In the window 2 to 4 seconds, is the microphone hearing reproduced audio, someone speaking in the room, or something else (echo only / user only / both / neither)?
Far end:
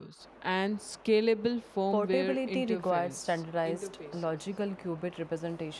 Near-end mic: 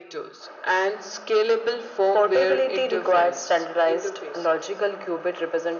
echo only